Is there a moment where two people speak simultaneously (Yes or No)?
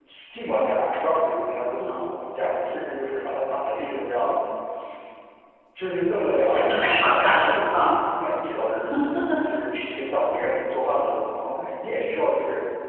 Yes